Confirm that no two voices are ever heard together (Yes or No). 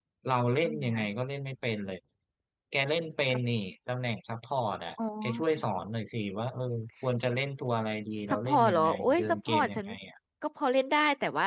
No